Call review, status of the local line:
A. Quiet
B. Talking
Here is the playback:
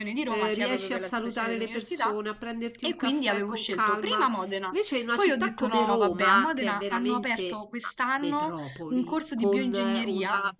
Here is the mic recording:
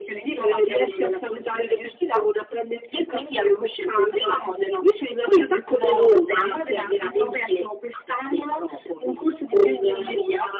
A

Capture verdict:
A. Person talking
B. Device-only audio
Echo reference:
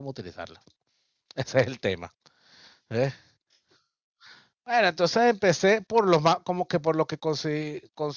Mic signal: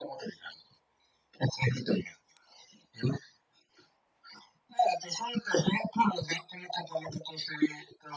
B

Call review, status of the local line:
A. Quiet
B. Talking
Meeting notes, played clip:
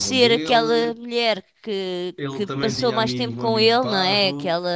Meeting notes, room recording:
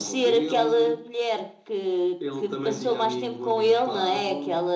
A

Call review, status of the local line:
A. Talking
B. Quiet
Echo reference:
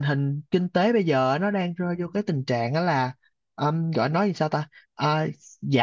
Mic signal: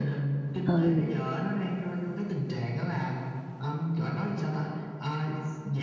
A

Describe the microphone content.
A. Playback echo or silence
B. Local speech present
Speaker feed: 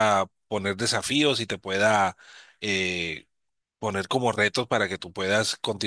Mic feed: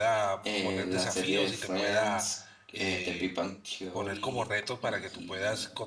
B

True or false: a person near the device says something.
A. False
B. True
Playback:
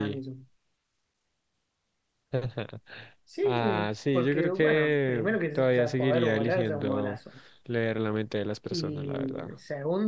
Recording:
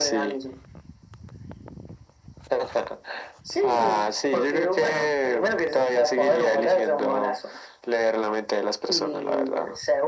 A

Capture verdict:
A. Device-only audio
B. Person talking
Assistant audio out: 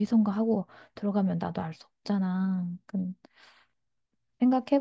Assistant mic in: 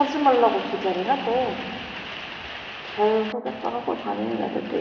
B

